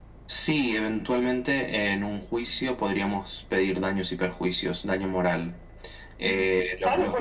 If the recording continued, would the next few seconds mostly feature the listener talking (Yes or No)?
Yes